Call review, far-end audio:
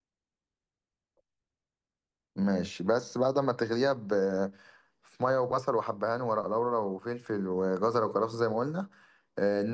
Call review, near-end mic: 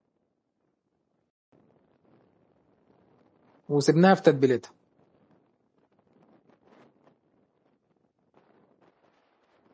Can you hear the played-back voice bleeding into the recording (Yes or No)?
No